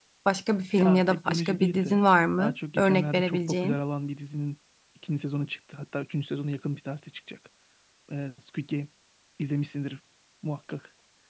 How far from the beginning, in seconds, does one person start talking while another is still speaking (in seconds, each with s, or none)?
0.8 s